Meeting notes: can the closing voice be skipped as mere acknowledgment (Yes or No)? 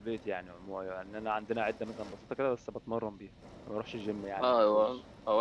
No